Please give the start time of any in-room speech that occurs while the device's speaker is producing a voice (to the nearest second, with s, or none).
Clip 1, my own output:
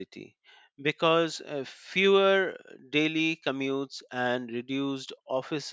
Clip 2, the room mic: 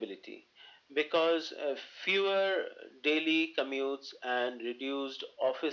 none